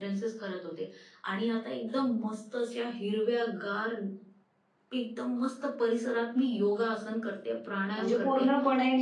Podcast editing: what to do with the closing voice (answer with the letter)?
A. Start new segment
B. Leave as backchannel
A